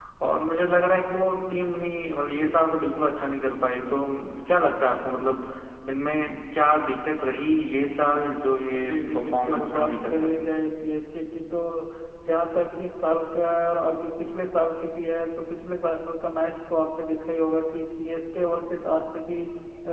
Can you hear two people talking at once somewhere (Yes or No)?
Yes